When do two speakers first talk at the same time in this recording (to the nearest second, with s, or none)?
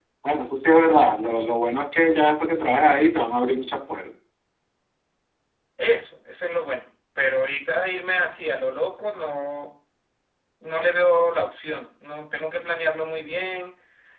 none